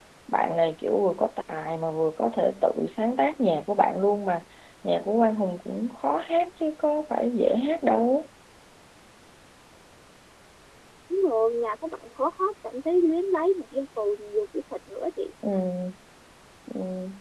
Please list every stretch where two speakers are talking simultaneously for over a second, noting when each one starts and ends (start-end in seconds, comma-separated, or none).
none